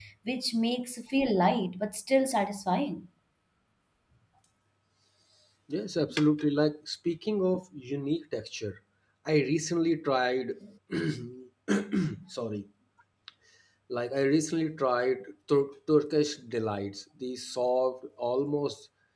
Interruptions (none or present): none